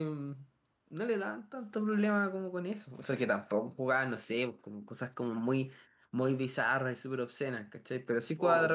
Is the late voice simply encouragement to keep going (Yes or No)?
Yes